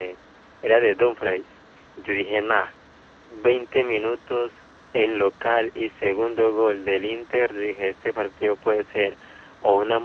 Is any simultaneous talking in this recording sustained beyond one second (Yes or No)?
No